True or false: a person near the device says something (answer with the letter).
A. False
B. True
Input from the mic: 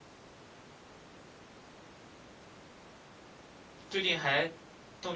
B